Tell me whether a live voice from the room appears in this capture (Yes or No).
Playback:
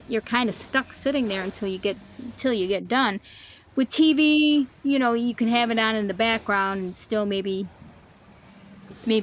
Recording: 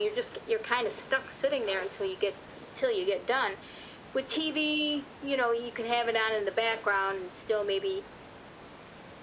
No